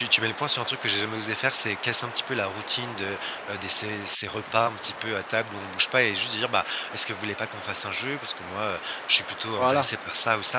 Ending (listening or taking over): listening